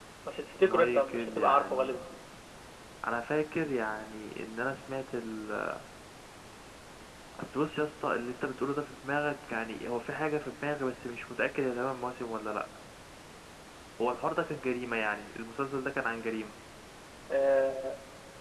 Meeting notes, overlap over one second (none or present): present